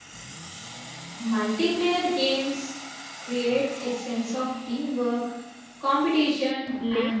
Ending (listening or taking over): taking over